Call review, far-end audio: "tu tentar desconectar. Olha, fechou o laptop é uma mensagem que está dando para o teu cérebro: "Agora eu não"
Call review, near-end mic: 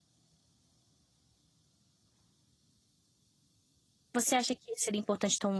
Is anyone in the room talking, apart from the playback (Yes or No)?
Yes